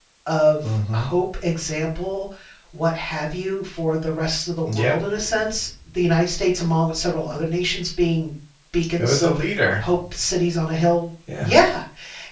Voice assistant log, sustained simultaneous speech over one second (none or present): none